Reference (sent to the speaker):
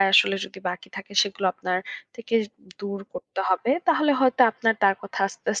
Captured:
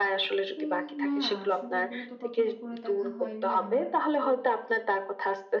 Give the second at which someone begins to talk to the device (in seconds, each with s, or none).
0.6 s